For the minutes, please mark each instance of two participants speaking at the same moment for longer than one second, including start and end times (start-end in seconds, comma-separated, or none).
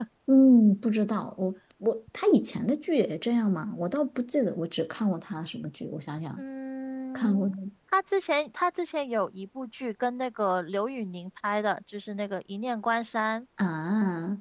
none